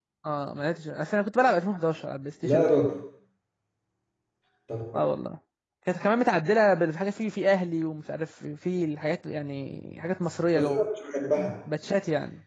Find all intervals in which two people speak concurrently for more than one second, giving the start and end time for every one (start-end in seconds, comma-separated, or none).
none